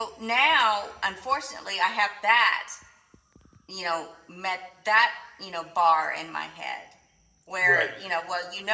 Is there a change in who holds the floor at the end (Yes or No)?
No